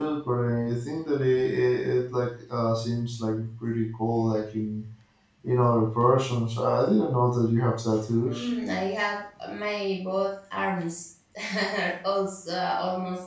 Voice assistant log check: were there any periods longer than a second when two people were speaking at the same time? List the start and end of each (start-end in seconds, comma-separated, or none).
none